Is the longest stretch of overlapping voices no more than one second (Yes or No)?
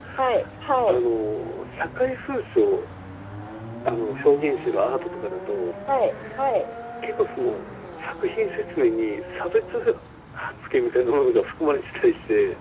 Yes